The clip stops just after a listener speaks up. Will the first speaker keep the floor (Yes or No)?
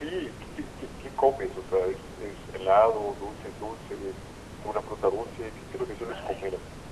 No